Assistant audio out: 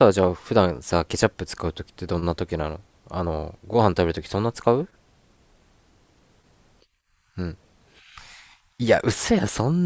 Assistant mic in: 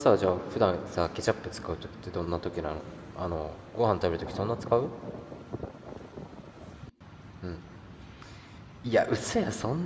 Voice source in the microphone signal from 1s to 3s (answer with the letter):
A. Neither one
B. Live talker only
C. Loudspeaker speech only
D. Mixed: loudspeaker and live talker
C